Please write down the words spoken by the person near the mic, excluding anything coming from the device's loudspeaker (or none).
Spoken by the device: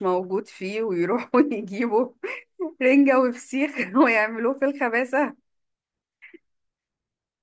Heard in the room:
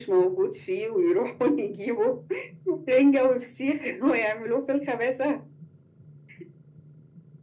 none